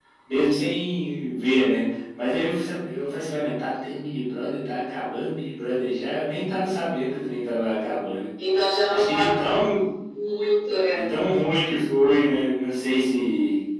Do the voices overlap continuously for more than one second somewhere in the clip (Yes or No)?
No